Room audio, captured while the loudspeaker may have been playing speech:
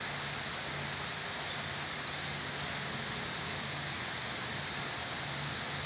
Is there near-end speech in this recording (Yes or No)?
No